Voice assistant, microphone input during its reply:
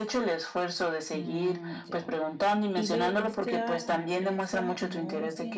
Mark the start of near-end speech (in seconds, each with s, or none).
1.1 s